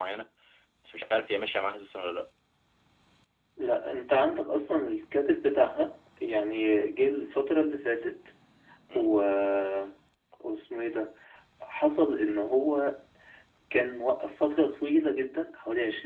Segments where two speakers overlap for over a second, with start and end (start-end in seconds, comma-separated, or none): none